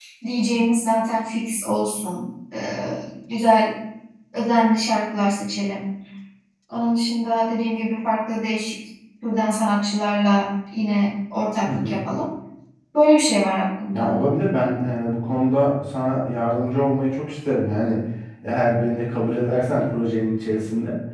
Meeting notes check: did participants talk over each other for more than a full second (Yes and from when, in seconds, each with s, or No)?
No